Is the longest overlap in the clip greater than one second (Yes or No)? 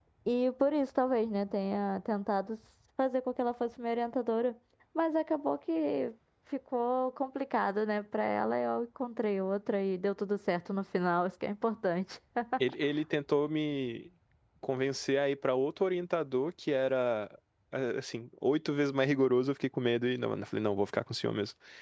No